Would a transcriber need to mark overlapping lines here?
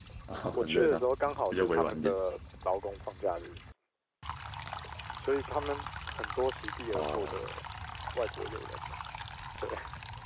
Yes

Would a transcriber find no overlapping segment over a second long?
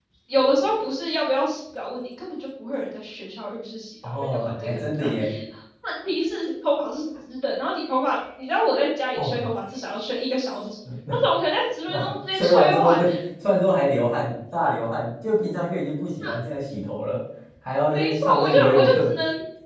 No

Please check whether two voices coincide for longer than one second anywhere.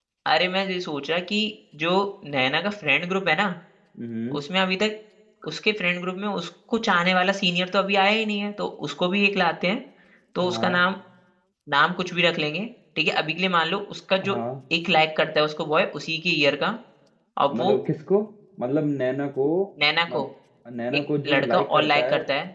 Yes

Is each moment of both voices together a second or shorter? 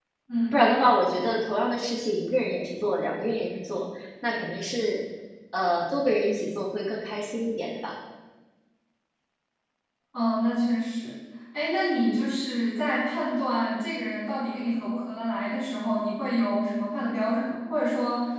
Yes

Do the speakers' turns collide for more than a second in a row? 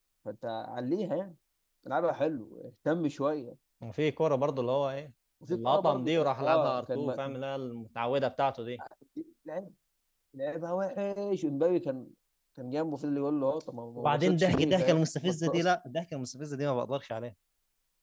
Yes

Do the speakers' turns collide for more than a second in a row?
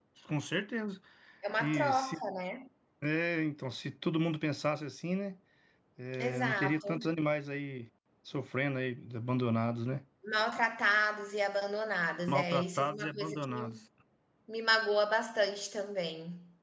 Yes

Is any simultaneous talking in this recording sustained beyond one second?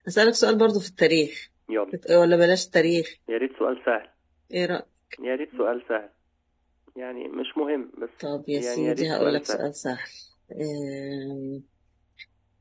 Yes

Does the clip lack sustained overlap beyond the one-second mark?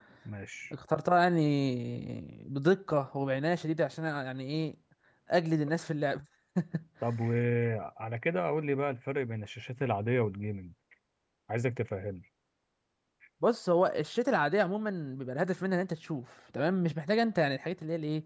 Yes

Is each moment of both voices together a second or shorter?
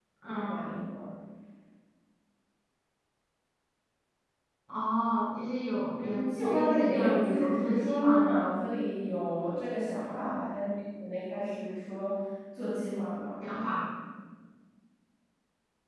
No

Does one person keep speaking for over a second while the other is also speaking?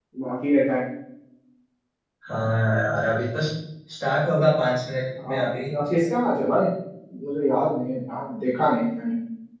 No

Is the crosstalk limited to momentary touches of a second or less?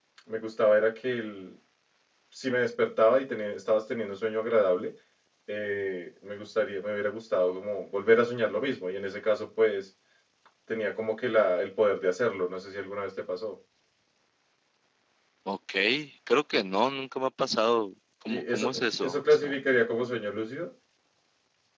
No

